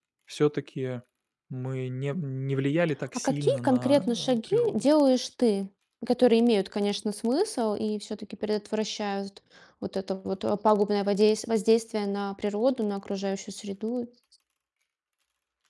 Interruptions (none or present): present